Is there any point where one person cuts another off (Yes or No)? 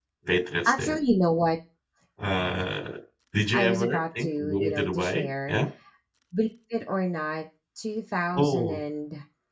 Yes